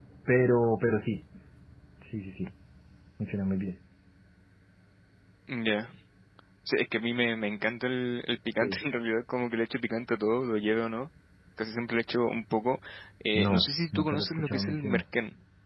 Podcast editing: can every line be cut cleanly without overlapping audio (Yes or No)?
No